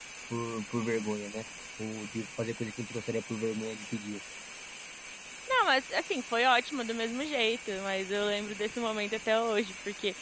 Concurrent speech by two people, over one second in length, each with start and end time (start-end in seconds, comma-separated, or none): none